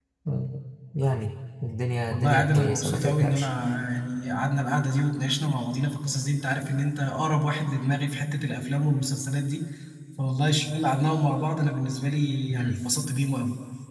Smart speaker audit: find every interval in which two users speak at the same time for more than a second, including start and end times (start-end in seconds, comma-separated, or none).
2.1-3.5